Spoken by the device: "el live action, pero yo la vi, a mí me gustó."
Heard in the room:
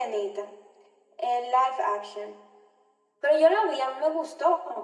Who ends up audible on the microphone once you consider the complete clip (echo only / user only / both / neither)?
echo only